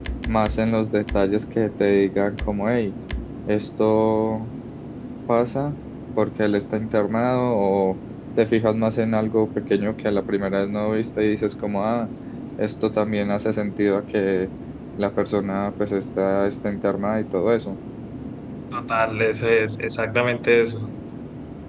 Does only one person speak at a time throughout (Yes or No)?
Yes